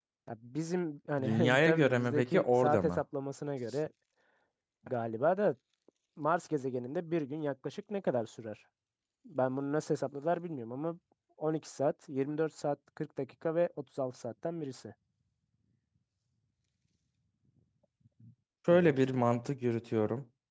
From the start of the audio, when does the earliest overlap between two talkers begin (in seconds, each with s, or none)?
1.2 s